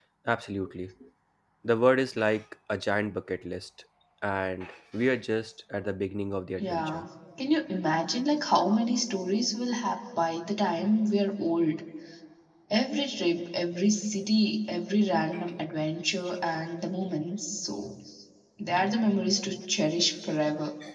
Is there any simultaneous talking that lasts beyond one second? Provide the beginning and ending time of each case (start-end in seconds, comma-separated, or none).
none